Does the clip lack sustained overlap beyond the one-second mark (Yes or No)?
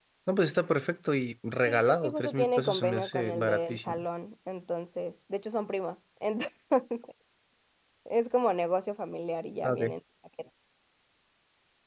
No